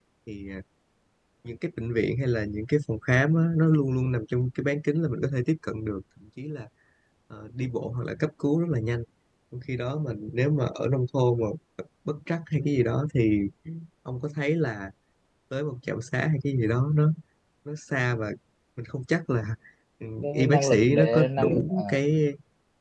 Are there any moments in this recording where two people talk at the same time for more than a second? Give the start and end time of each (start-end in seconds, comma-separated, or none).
20.2-21.8